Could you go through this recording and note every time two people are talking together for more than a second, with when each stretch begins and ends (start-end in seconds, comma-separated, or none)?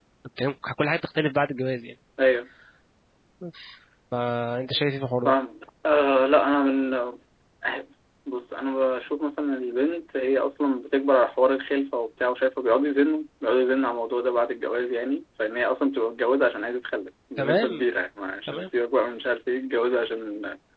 none